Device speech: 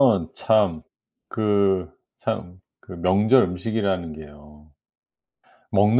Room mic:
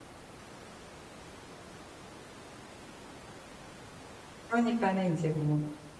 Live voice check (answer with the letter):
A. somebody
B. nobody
A